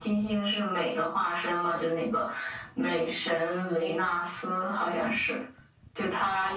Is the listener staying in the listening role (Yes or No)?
Yes